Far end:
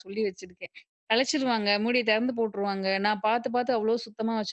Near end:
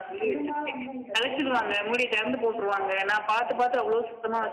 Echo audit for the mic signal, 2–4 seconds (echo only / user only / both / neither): both